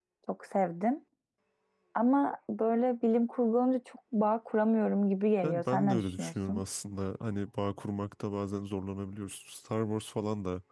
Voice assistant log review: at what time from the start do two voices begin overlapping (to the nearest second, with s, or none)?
5 s